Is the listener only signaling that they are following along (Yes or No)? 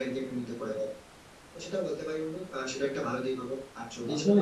No